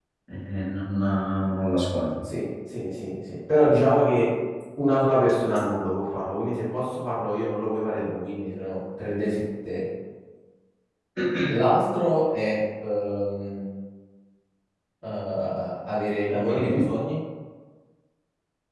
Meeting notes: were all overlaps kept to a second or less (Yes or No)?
Yes